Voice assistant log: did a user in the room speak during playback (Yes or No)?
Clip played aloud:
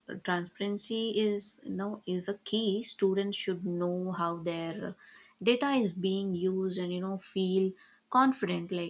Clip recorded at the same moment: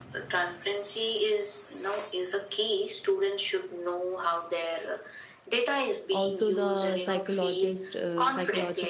Yes